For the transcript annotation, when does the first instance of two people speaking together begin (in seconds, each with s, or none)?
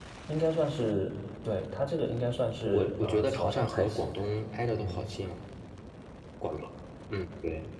2.7 s